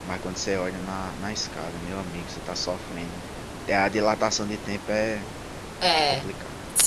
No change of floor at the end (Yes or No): No